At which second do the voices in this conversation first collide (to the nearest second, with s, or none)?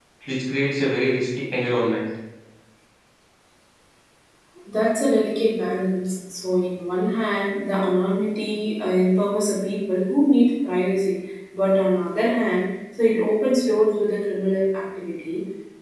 none